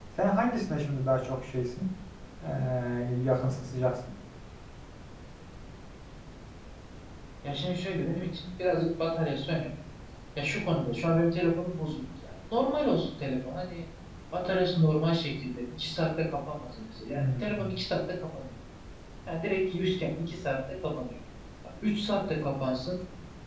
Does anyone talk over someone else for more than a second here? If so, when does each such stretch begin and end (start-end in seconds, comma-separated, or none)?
none